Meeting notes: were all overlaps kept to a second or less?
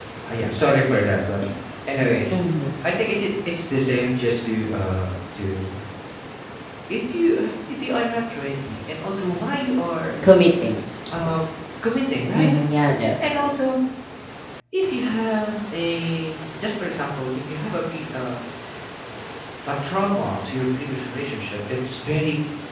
Yes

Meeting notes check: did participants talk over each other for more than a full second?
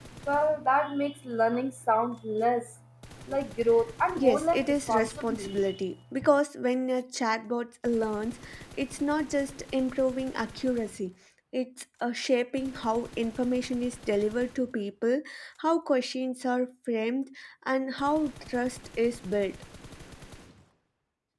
Yes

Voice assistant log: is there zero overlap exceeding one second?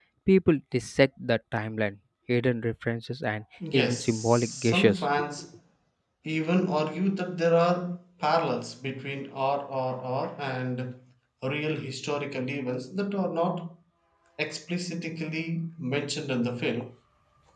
No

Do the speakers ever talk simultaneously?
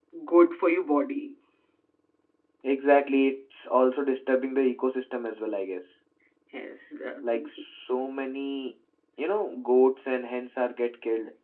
No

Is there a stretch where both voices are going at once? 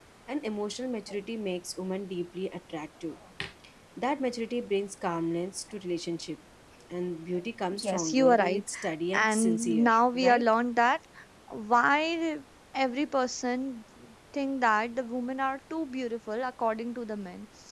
Yes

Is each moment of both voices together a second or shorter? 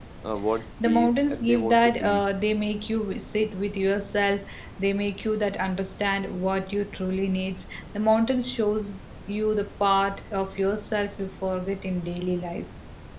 No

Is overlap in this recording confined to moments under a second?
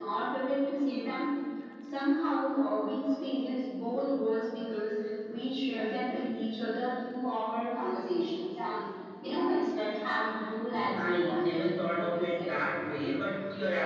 No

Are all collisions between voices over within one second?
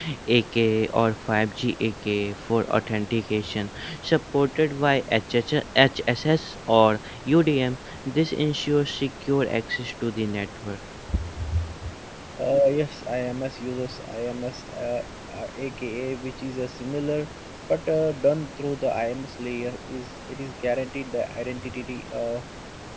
Yes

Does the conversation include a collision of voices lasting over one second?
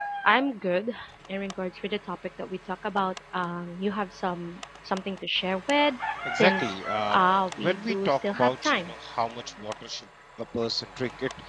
Yes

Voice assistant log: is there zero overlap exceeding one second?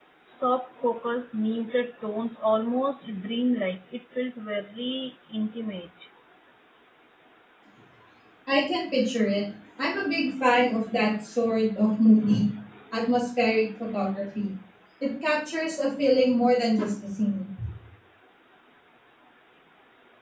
Yes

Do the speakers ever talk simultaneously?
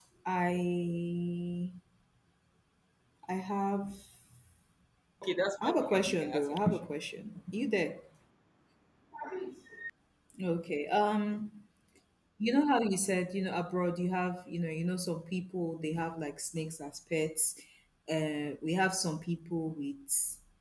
Yes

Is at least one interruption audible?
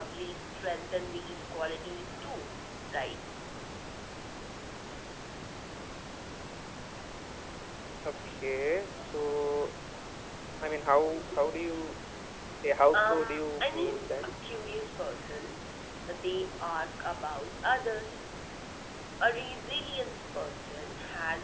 Yes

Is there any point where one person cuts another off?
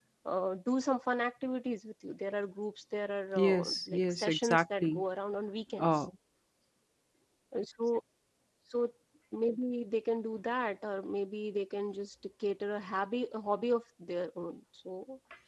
Yes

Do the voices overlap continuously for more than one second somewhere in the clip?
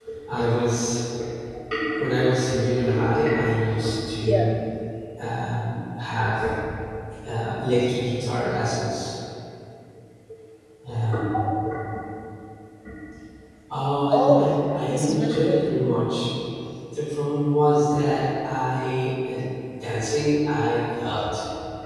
Yes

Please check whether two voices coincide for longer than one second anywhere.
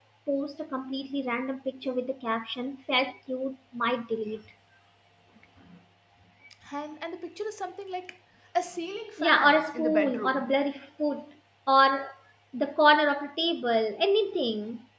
Yes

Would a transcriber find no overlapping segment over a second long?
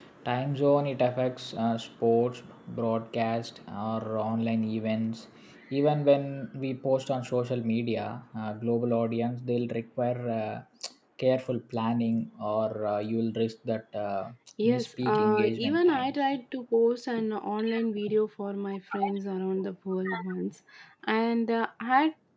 No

